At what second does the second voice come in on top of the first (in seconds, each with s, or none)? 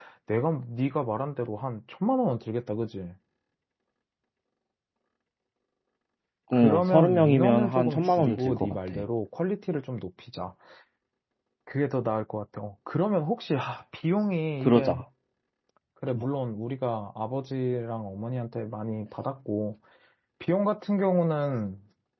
6.5 s